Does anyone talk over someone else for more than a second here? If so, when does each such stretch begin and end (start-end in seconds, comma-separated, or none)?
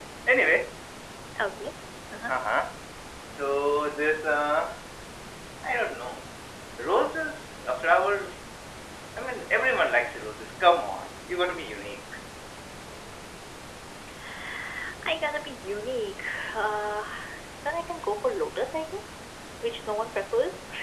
none